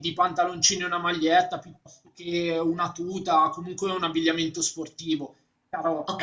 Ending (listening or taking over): taking over